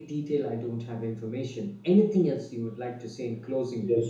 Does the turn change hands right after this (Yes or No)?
Yes